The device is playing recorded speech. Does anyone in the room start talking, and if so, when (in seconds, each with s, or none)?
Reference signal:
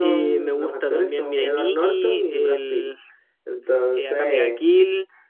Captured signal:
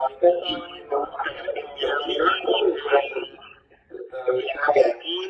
none